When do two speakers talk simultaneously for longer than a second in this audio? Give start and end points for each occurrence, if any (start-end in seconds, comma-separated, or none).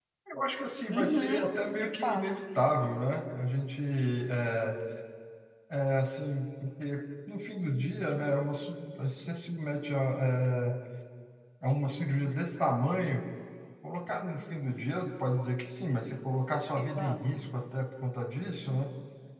0.9-2.2